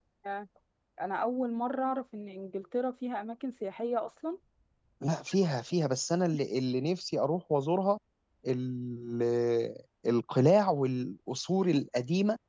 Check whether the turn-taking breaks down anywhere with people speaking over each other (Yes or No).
No